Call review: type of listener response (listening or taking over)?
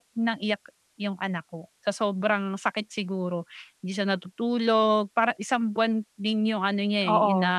listening